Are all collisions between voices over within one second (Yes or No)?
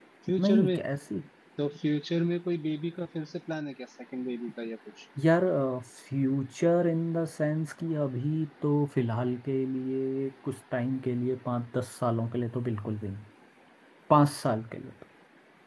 Yes